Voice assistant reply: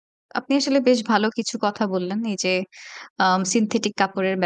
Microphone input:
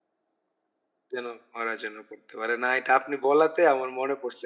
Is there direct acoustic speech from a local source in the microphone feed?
Yes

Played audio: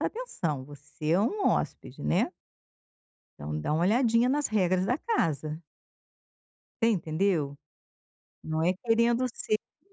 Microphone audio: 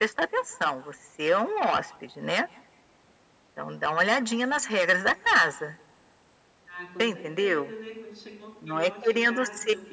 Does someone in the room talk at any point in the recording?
Yes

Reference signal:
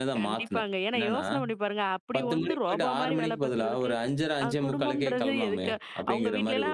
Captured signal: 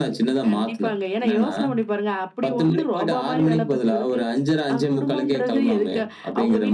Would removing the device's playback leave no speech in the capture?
Yes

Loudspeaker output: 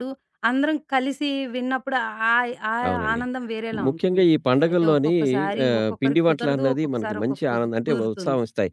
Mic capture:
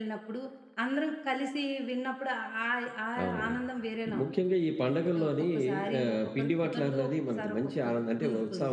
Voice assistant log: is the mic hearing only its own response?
Yes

